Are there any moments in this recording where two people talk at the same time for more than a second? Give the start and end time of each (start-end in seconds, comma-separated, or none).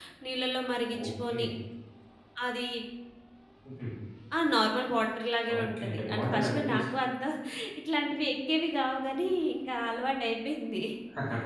5.6-6.8